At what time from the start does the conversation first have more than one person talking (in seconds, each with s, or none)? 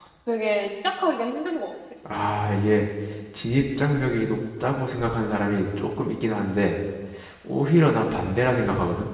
none